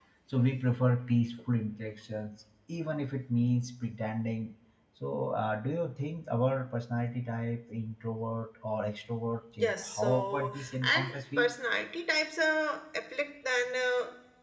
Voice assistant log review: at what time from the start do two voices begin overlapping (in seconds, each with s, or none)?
9.6 s